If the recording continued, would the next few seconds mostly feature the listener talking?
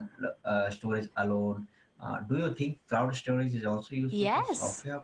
Yes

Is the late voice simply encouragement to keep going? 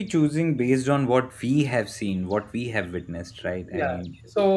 No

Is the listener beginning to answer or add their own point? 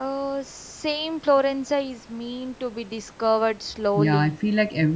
Yes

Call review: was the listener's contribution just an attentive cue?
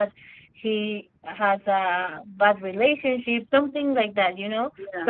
Yes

